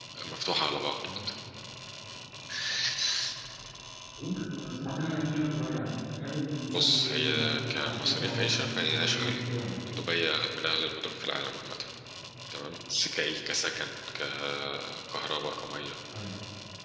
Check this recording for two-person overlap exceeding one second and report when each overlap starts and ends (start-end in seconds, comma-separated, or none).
6.7-9.4